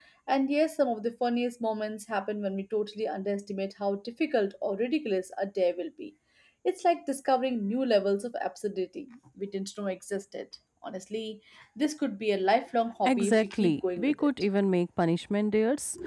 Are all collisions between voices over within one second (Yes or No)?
No